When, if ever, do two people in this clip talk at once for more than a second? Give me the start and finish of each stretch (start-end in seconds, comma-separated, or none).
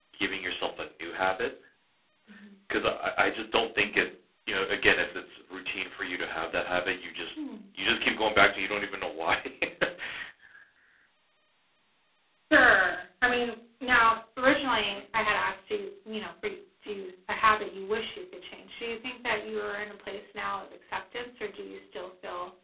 none